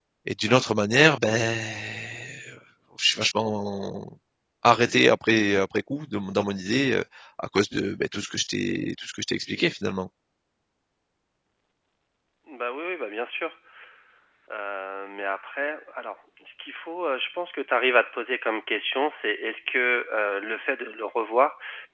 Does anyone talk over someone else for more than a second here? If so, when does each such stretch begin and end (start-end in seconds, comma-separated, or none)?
none